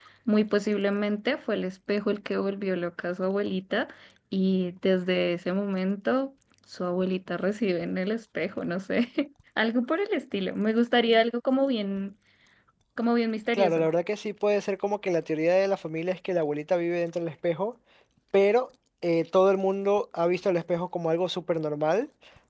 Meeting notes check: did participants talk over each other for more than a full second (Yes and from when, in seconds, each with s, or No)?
No